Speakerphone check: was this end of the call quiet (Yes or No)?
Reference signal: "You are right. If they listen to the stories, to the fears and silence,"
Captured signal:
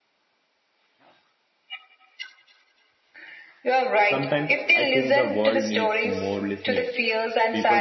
No